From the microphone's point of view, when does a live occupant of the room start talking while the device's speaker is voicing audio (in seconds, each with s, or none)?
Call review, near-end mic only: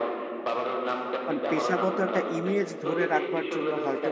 1.3 s